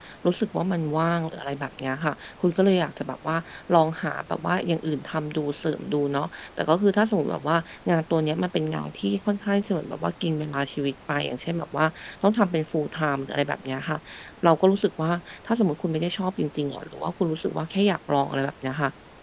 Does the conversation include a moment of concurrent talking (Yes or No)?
No